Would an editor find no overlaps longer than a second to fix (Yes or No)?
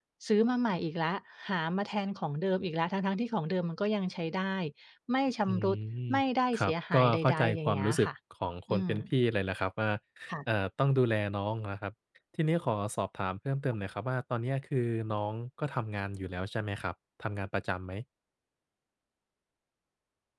No